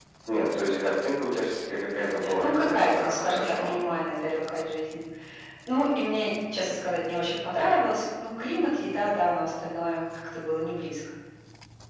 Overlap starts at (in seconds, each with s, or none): 2.2 s